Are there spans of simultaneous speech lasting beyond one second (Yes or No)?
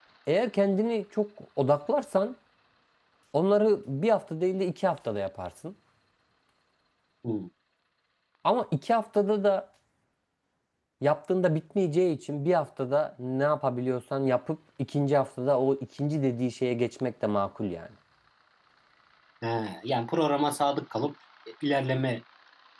No